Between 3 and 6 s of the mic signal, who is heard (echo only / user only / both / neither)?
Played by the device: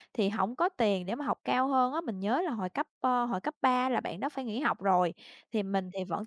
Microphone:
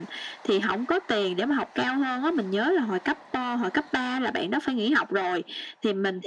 echo only